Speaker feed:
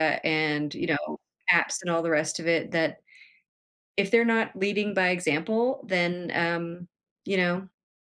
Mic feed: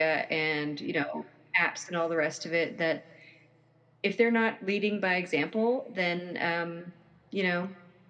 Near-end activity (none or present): none